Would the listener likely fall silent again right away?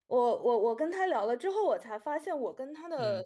Yes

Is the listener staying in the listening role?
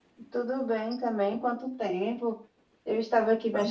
Yes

